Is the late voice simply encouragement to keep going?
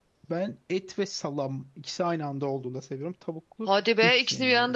No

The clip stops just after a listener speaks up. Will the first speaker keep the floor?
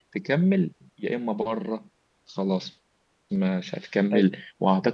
Yes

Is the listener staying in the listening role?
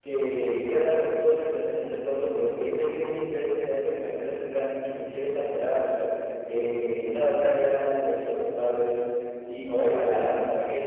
Yes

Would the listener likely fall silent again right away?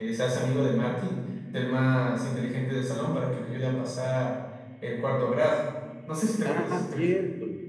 No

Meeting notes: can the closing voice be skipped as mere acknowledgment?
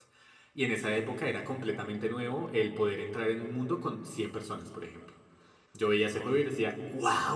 Yes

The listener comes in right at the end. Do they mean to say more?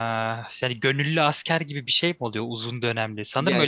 No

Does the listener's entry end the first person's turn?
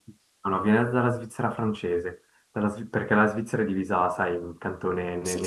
No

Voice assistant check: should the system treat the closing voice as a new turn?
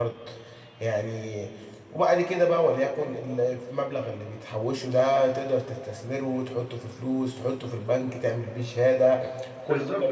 Yes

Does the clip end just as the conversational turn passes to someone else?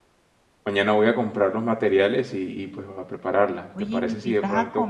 Yes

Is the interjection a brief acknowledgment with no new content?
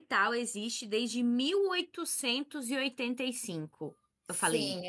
No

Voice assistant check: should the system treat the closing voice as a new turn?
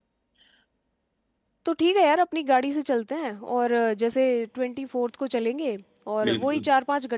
No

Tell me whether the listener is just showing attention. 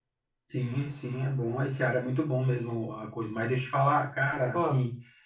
Yes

